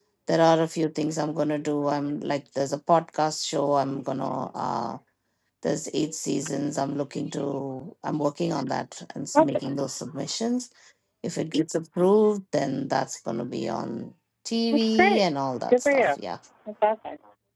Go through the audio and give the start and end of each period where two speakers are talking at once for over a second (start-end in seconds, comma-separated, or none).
none